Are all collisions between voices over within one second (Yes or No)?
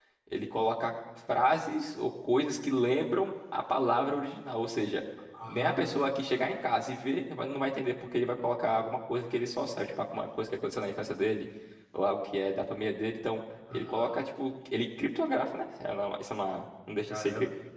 No